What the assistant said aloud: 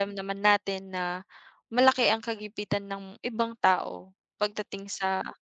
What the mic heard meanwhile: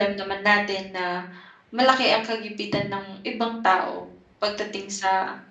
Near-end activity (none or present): none